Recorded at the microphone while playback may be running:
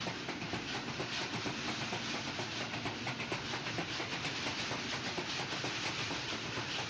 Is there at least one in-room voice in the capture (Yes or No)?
No